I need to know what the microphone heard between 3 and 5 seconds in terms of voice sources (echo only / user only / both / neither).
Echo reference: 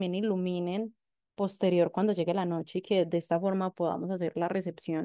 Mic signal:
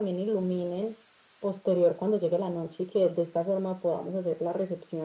echo only